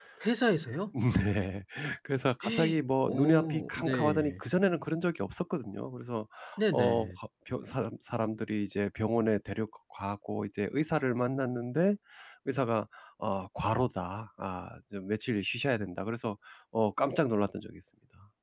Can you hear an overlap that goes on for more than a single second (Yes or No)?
Yes